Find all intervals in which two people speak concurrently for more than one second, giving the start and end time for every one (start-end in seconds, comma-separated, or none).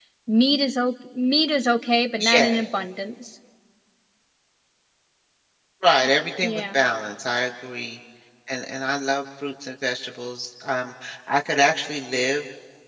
none